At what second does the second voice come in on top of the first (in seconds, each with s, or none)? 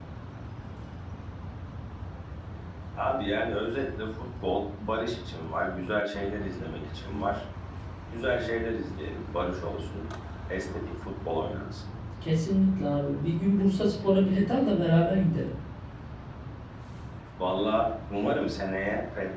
none